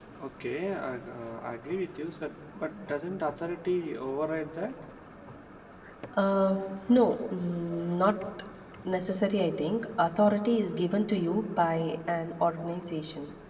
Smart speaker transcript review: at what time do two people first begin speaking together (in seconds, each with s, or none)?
none